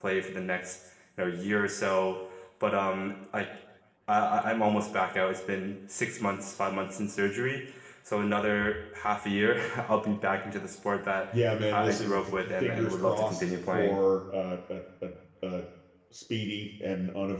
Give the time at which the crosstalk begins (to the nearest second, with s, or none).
12 s